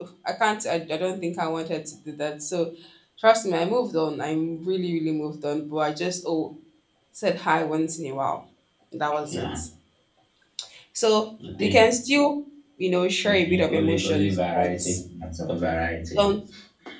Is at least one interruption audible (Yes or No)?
Yes